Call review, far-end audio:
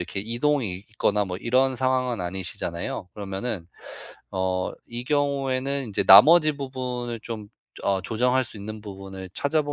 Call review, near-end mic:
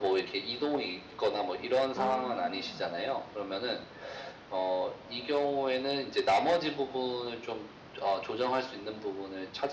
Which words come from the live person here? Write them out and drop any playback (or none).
아.